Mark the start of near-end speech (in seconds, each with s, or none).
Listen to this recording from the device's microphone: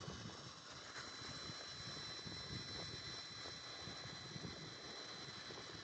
none